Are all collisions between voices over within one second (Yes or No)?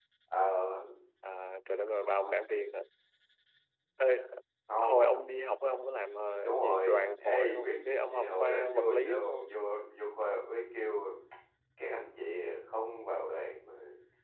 No